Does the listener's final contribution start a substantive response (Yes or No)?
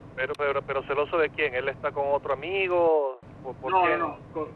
Yes